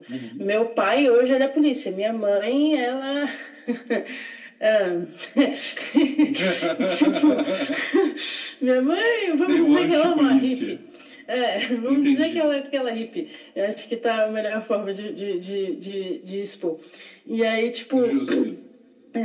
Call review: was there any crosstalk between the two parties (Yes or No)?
Yes